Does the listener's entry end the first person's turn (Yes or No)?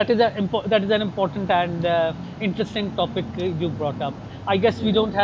No